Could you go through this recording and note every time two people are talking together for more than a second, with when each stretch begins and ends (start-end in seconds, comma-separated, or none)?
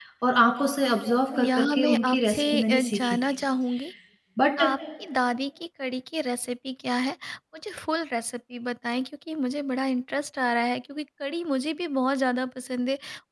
1.4-3.2